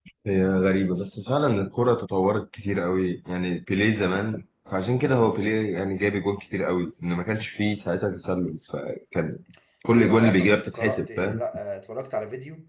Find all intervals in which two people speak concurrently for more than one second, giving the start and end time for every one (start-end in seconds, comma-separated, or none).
9.9-11.4